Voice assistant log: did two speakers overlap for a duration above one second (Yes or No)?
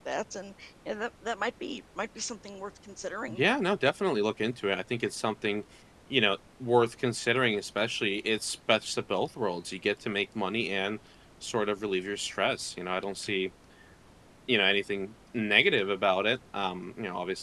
No